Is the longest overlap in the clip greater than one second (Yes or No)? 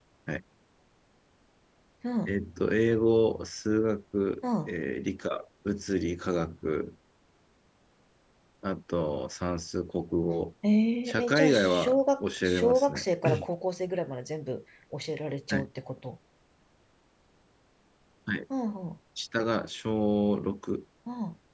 Yes